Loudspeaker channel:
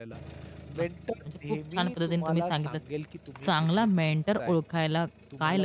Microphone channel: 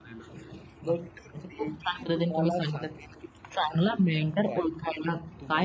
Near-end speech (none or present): none